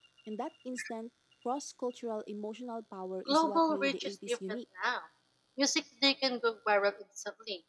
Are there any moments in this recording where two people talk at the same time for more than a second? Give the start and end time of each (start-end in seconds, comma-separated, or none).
3.3-4.6